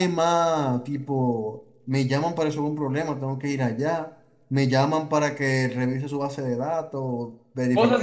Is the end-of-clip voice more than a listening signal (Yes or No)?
Yes